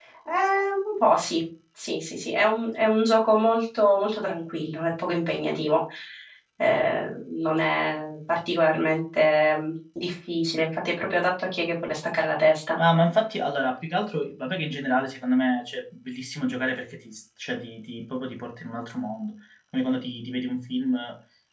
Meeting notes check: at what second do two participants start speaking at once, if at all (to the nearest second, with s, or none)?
none